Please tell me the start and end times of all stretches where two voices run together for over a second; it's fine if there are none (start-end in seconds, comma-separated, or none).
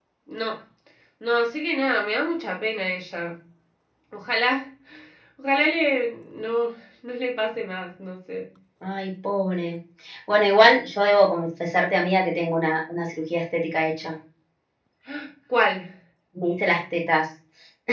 none